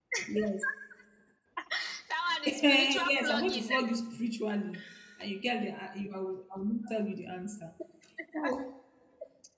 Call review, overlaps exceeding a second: present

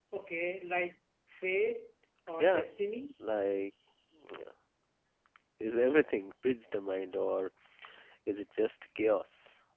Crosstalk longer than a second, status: none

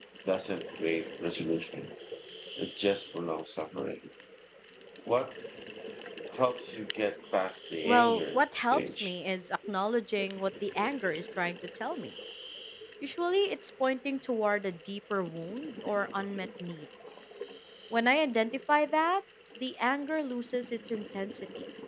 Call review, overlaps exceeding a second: present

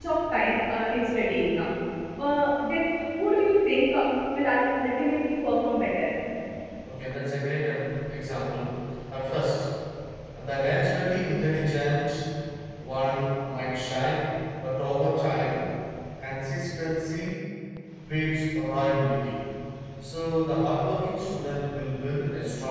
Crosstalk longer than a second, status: none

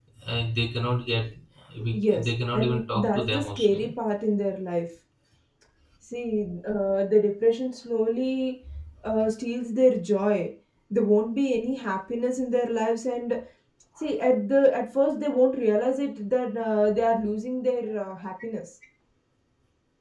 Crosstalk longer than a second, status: present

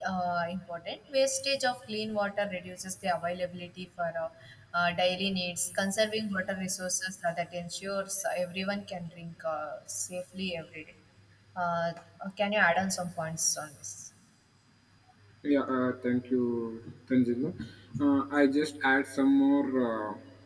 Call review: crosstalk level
none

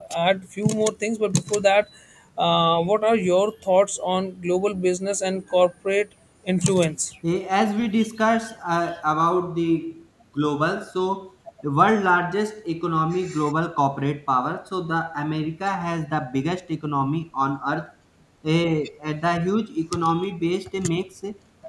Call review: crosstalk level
none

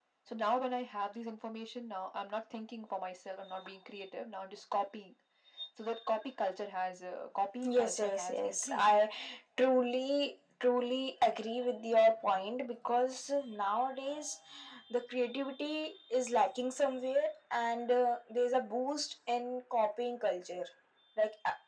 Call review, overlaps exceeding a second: present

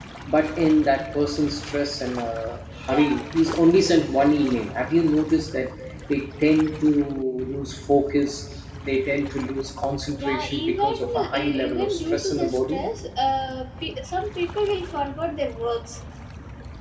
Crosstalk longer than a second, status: present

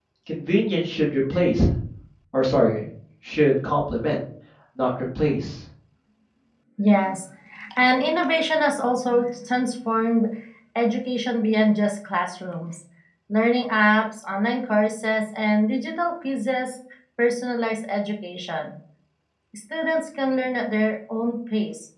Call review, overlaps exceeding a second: none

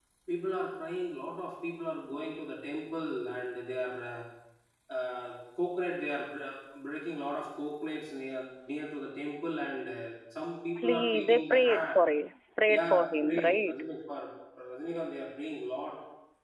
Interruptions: present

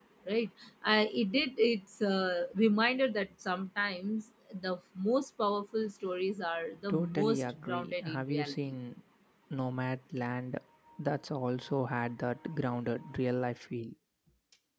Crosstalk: present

